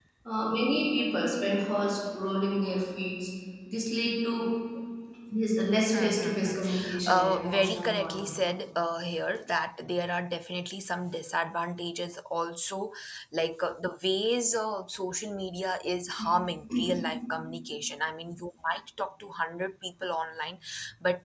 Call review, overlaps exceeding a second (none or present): present